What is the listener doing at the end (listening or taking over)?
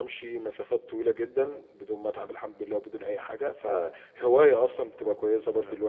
taking over